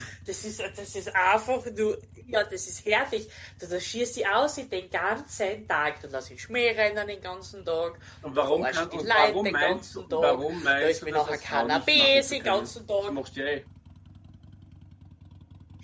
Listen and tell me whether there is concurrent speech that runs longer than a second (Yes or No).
Yes